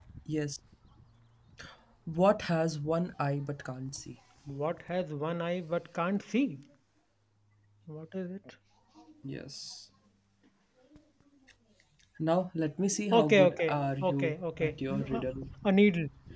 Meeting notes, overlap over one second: present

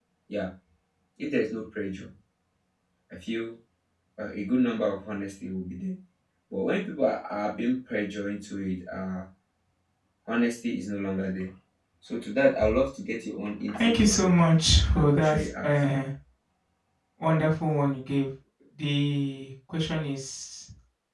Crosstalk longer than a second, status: present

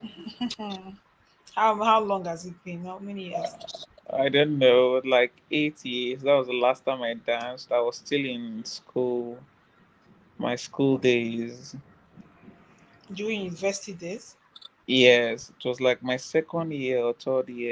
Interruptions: none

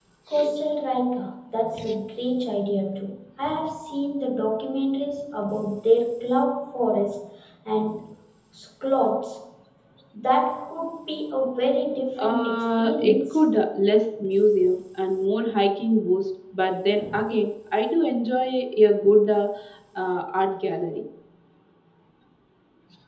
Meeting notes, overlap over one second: present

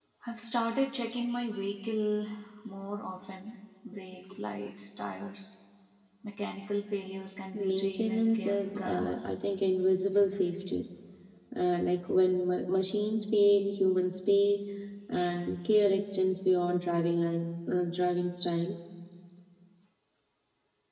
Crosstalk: present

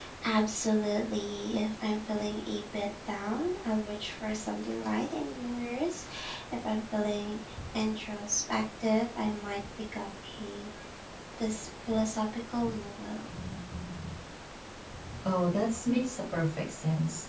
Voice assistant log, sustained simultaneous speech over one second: none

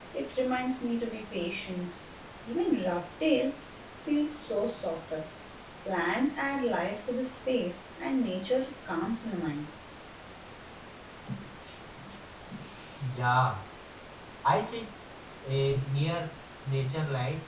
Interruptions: none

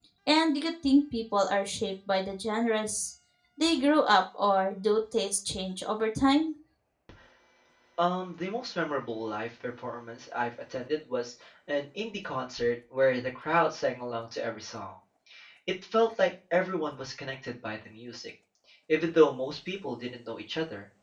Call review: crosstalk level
none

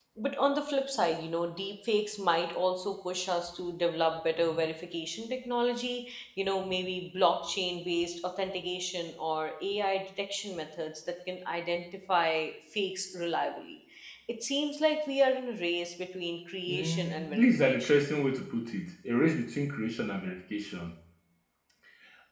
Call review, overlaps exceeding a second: present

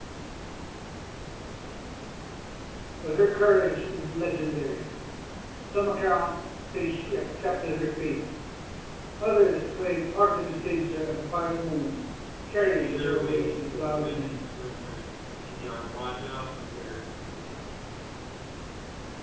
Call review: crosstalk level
present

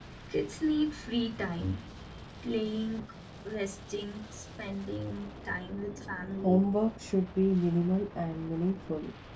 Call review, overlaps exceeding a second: none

